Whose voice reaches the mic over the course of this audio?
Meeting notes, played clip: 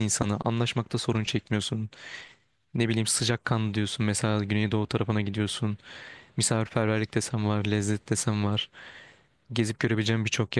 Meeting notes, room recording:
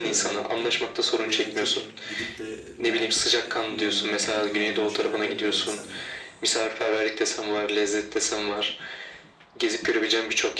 both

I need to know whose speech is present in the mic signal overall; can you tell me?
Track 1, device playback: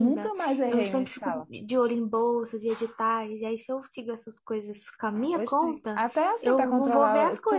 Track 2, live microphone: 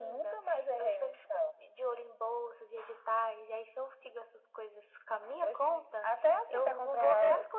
echo only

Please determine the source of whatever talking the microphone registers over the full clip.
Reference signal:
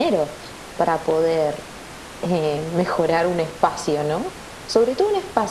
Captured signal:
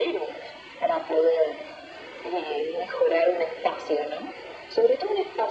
echo only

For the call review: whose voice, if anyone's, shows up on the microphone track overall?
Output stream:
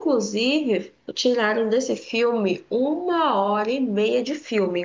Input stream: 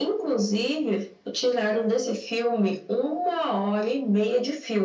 echo only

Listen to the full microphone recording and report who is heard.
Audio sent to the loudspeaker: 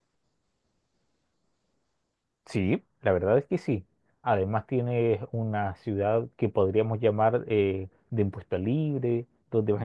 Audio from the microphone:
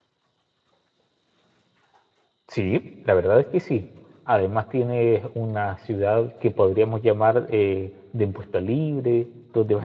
echo only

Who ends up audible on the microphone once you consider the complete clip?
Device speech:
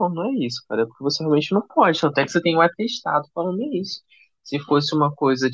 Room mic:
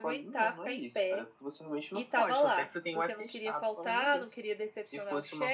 both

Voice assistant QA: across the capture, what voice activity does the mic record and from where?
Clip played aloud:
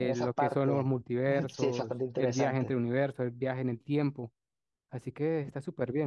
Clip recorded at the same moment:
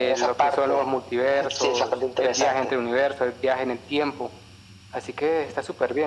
echo only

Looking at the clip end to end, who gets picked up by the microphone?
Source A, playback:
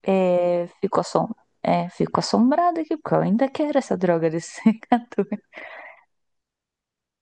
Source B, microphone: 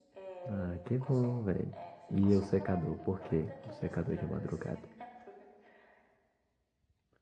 both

